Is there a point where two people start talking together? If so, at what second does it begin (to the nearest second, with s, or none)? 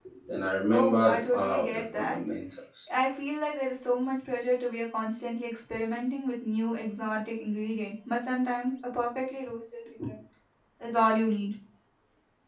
1 s